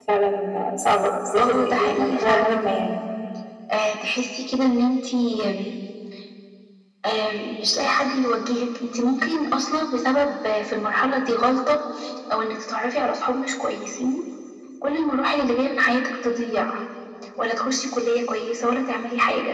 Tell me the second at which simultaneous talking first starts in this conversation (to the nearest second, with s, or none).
1 s